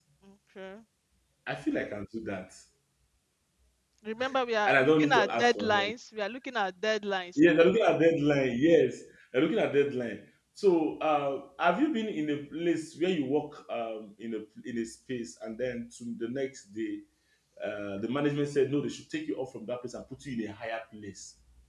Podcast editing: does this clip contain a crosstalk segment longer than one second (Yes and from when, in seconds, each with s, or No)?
Yes, from 4.7 s